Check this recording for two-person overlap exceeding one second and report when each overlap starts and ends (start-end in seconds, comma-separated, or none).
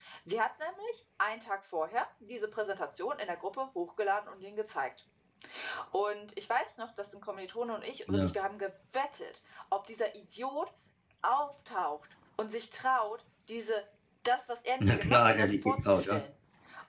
14.9-16.2